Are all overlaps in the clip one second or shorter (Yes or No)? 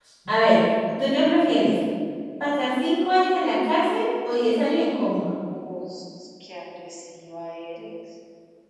Yes